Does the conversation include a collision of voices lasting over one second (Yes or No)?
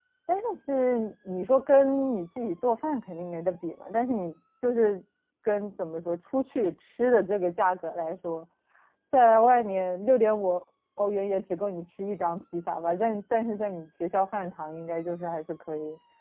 No